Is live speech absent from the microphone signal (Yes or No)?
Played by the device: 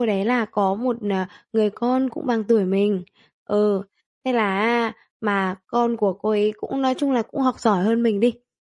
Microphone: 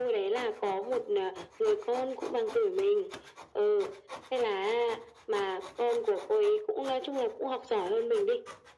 Yes